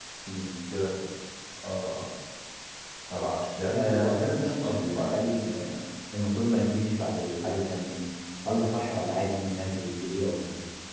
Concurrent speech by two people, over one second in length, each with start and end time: 3.7-5.2

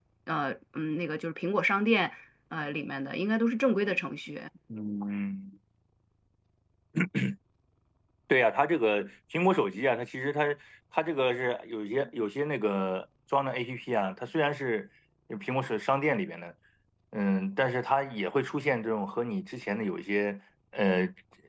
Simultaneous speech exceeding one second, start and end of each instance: none

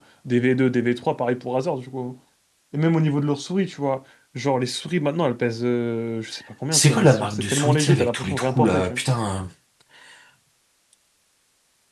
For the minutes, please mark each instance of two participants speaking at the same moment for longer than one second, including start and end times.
6.7-9.0

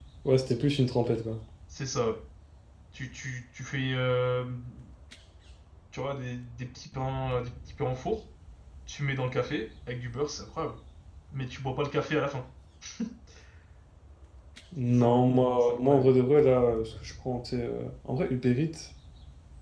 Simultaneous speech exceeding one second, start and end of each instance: 14.9-16.1

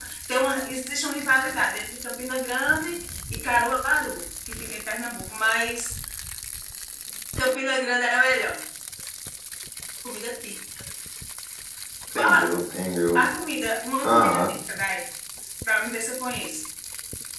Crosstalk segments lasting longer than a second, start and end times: none

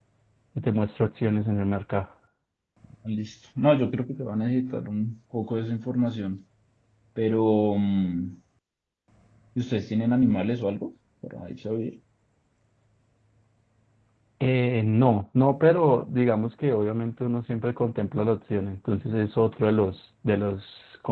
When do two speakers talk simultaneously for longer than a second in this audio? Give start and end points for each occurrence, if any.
none

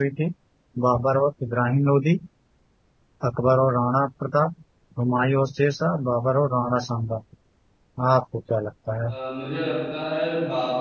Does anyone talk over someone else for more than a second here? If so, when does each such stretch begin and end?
none

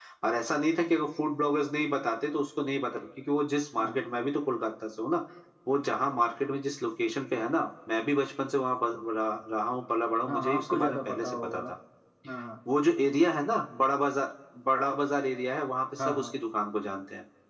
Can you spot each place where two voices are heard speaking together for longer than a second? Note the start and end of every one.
10.3-11.6

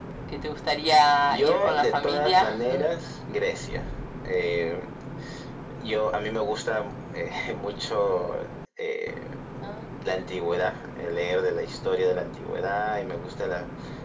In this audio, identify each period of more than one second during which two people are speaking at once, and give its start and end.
1.3-2.6

